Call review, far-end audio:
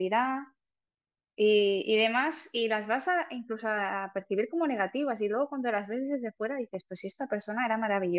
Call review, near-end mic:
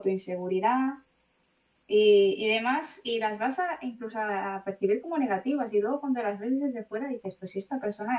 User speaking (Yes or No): No